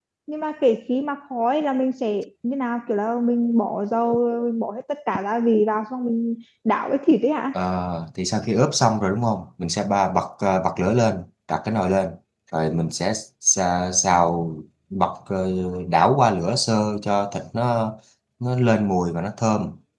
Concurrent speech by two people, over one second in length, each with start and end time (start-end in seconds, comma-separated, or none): none